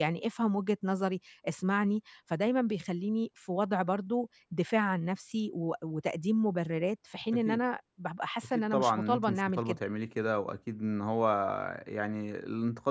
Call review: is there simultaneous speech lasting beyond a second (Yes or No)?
Yes